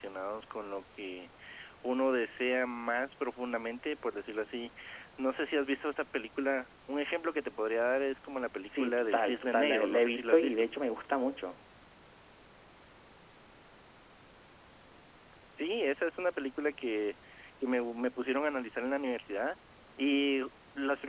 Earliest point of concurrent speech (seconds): 9 s

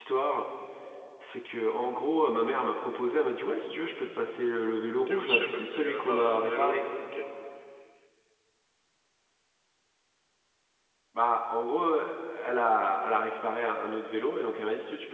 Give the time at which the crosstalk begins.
5 s

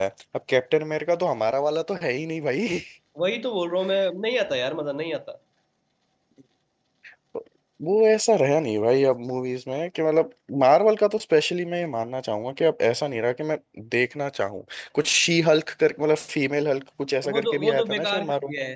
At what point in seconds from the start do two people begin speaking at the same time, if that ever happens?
17 s

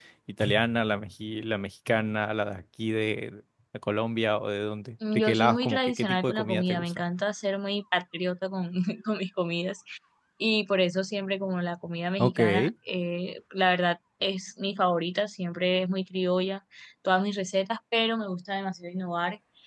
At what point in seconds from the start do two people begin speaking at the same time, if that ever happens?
5 s

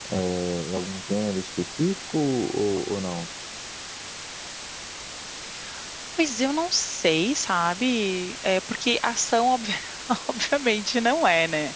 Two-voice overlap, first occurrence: none

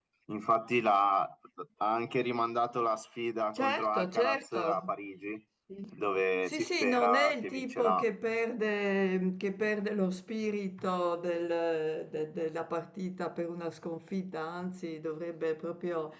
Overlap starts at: 4 s

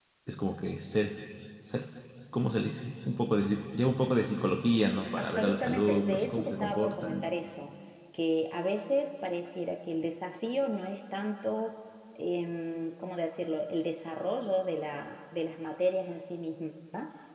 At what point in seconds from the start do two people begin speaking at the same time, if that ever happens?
5 s

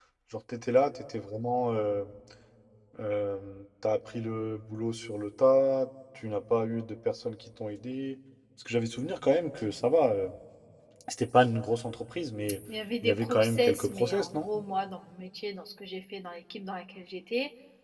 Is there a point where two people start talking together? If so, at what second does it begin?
13 s

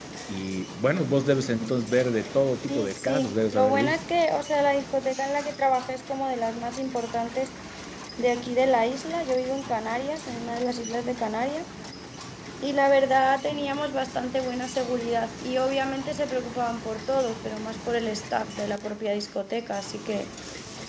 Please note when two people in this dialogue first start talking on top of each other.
3 s

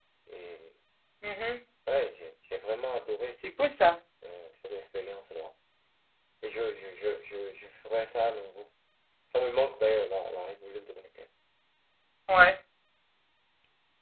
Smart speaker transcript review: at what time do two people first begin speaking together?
none

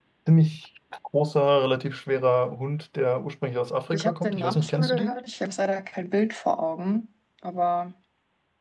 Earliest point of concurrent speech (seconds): 4 s

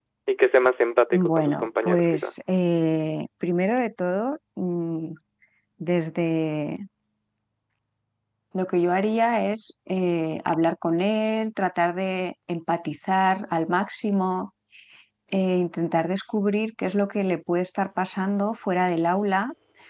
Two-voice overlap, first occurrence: 1 s

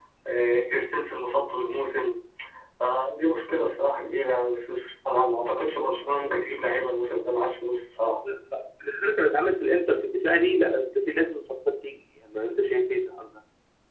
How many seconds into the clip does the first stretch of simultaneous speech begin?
none

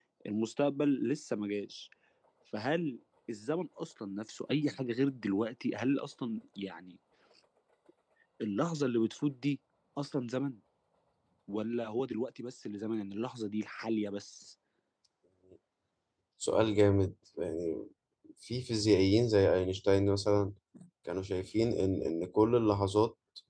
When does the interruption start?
none

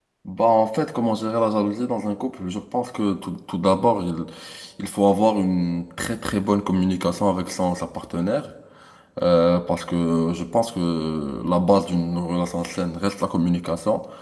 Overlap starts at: none

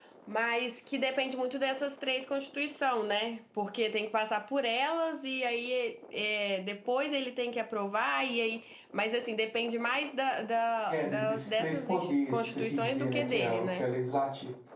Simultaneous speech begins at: 11 s

